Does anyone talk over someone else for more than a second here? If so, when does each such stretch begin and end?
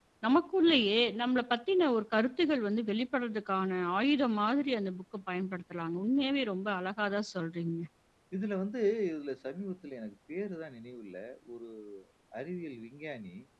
none

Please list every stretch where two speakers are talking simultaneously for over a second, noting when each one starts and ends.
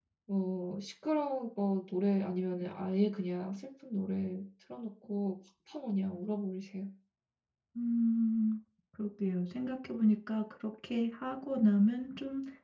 none

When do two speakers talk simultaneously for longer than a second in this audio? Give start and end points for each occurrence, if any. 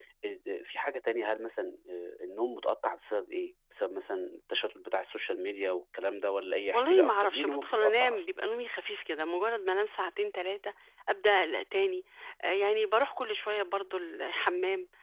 6.7-8.2

